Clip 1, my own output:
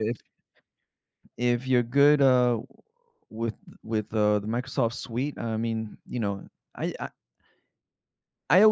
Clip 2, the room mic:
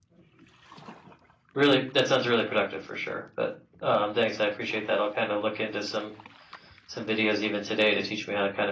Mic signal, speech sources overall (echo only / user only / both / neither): user only